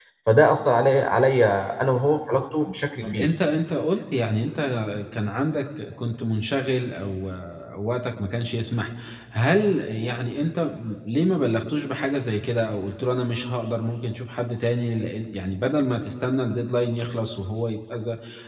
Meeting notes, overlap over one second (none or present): none